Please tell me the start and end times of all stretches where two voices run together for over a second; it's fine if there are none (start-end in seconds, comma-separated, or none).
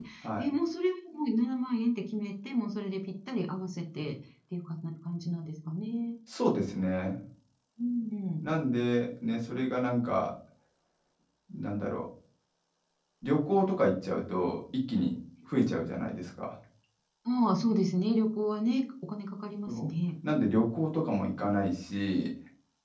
none